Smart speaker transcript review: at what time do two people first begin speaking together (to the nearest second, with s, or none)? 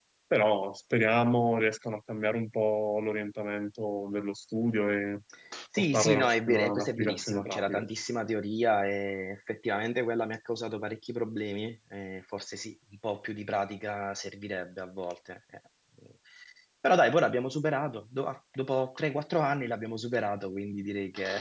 6 s